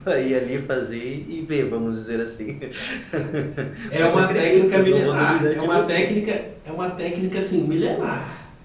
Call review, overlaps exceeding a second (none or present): present